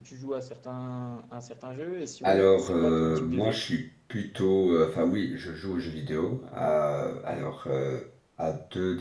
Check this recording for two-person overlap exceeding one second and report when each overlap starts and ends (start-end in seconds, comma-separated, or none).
2.2-3.6